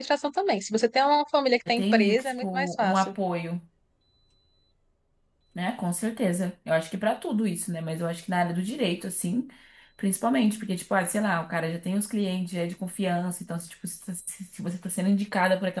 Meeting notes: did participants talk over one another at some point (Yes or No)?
Yes